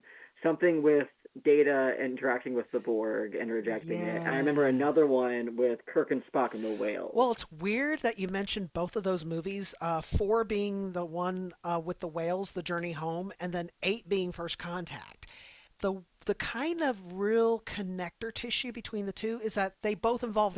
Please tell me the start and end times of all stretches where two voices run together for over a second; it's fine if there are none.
3.6-4.9

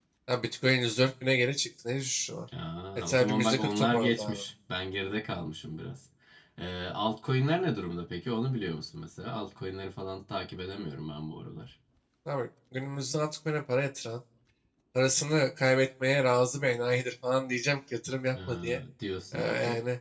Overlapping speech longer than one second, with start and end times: 3.0-4.4

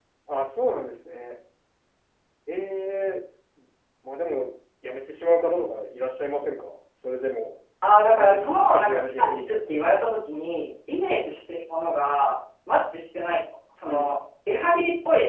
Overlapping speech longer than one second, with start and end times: 8.1-9.6

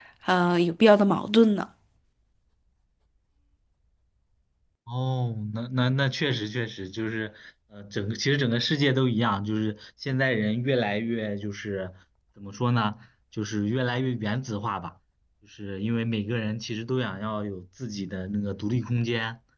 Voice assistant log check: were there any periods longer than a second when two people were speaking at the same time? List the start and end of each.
none

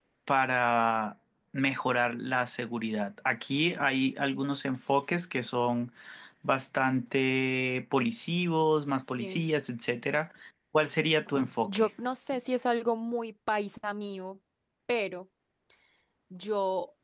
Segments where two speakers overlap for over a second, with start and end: none

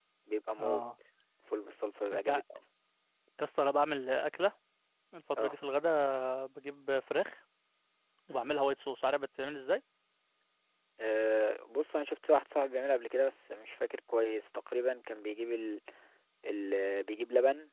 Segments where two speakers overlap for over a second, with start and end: none

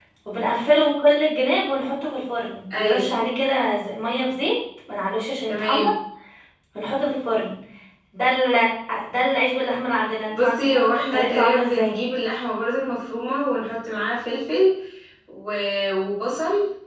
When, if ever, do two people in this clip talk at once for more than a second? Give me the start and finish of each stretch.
10.3-11.9

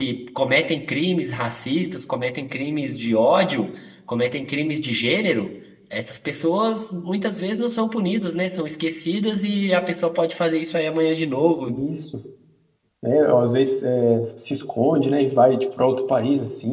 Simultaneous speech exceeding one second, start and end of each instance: none

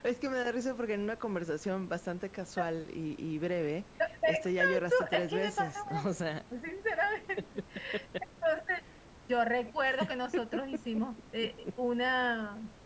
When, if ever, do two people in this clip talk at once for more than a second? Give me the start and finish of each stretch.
4.2-6.0

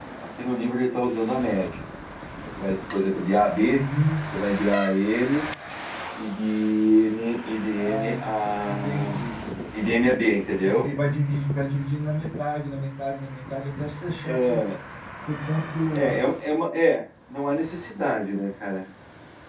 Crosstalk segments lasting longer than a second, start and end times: 7.7-9.2

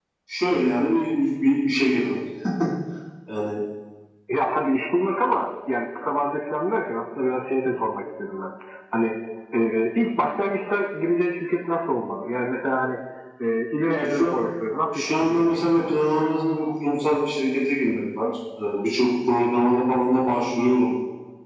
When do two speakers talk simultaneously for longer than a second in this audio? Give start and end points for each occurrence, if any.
14.9-16.3

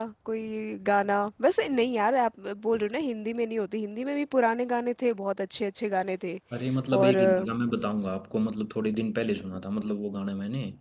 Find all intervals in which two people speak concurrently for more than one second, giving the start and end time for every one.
none

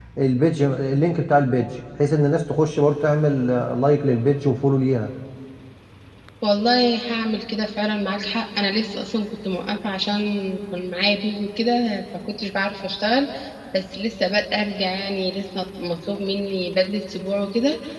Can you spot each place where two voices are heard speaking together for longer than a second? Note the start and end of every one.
none

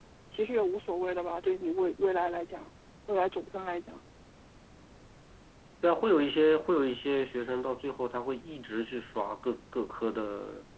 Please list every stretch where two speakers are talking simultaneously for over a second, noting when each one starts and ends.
none

